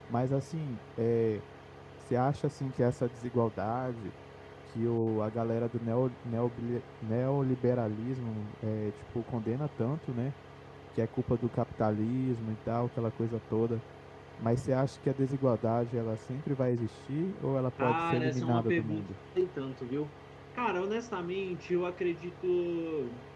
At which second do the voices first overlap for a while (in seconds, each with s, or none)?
17.8 s